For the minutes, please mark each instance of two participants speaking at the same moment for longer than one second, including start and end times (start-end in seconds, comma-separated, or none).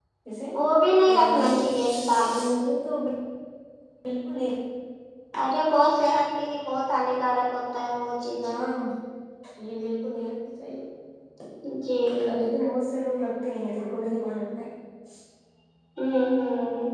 1.1-2.3